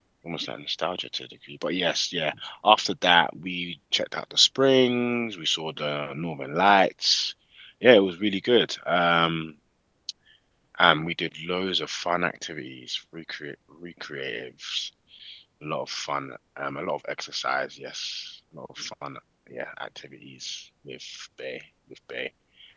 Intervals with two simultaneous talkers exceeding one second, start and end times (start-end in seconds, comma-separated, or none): none